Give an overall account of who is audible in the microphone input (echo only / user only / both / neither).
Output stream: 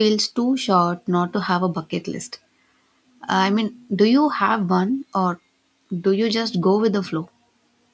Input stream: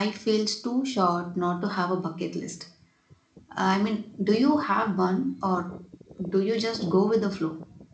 echo only